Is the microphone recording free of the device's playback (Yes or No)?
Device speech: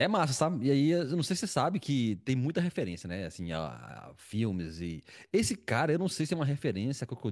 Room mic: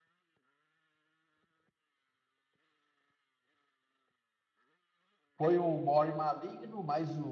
Yes